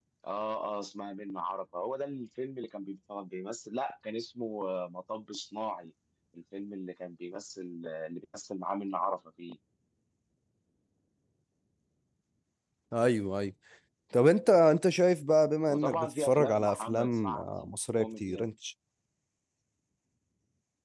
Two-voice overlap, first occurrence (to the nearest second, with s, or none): 16 s